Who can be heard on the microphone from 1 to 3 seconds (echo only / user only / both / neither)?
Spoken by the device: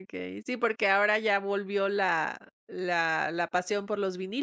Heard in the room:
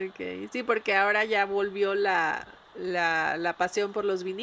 echo only